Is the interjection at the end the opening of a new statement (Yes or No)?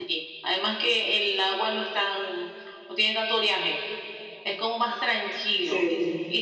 No